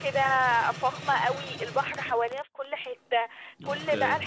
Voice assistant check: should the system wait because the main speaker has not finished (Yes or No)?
Yes